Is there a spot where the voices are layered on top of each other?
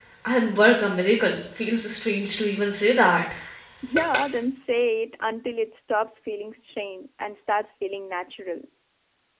No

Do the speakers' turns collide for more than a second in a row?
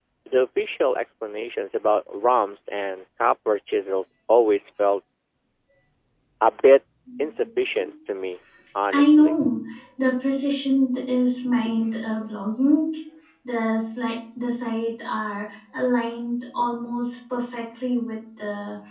No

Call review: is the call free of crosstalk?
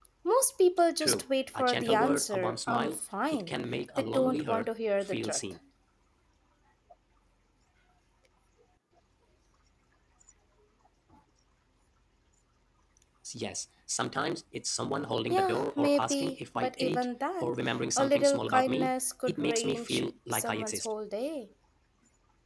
No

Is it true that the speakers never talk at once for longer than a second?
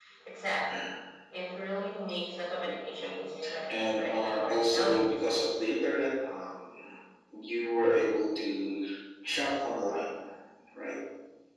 No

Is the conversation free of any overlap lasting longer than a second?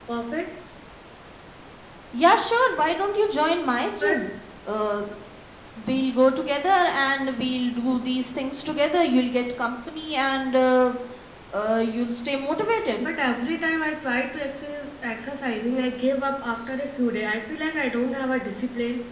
Yes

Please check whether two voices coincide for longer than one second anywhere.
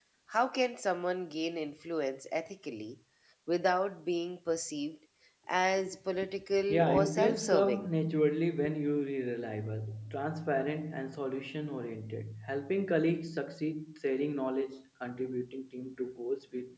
Yes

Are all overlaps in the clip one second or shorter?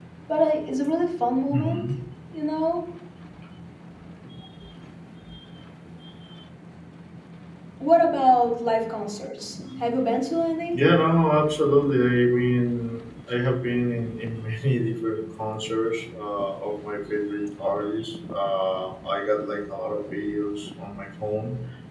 Yes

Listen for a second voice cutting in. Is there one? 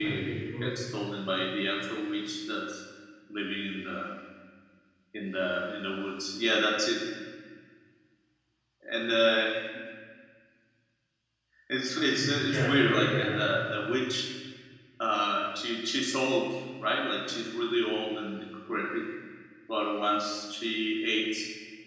Yes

